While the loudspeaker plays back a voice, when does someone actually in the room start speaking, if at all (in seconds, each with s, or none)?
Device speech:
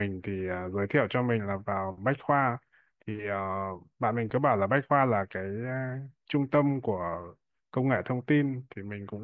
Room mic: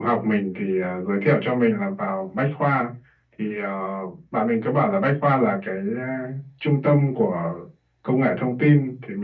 none